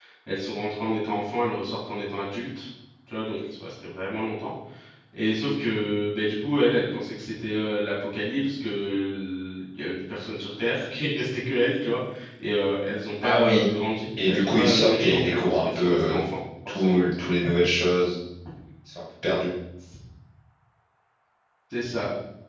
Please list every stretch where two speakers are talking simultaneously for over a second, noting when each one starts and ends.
14.3-16.2

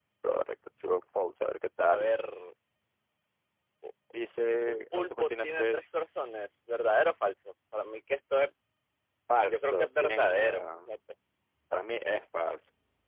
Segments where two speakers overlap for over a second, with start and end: 4.7-6.5, 9.4-10.9

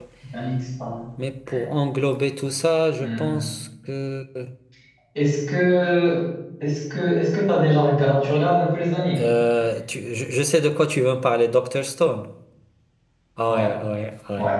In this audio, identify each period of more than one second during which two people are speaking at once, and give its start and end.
none

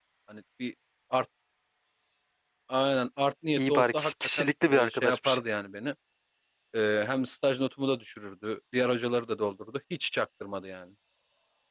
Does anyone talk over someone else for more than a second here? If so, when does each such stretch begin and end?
3.6-5.4

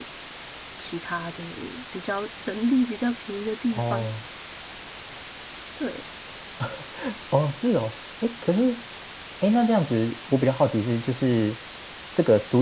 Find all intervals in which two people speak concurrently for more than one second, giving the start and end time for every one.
none

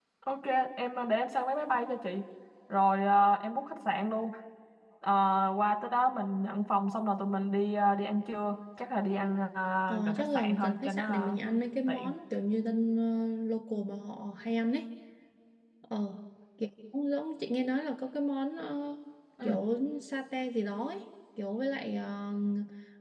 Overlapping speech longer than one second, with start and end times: 9.9-11.4

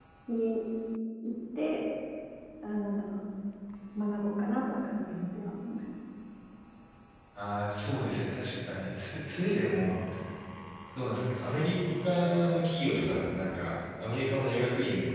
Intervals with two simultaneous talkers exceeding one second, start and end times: none

